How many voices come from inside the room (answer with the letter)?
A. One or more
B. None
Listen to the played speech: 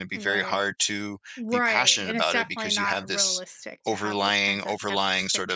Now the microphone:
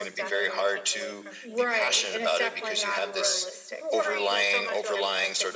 A